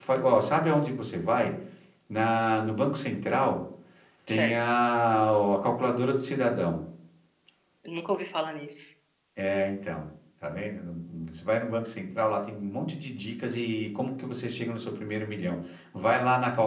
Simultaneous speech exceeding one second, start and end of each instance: none

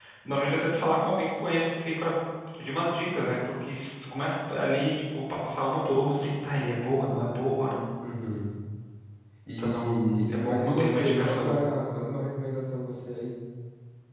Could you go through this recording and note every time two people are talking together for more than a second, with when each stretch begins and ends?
9.6-11.6

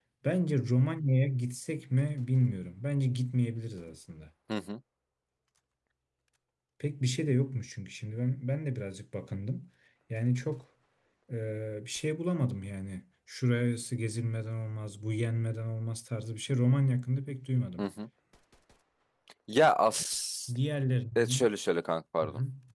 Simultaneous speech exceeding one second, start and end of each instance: none

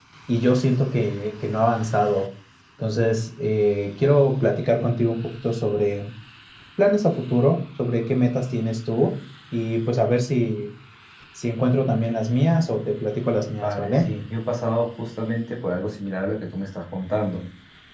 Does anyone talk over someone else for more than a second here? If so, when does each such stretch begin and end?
none

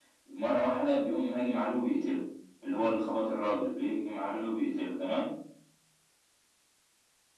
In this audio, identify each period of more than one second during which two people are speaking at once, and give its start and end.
none

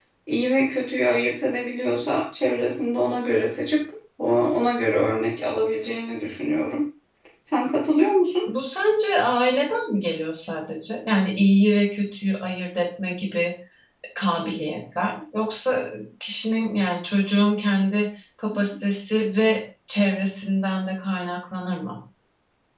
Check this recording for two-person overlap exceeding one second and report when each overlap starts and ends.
none

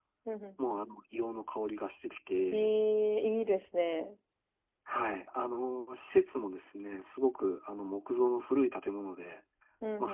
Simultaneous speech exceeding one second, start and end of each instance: none

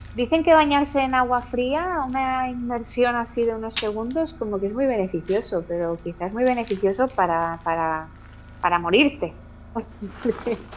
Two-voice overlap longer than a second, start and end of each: none

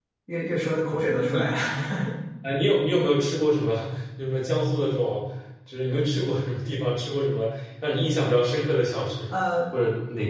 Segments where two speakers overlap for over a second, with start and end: none

